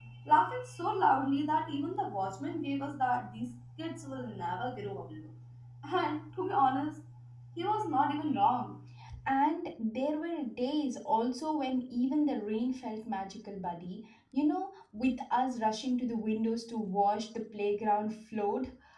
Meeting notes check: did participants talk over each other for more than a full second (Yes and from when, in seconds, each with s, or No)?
No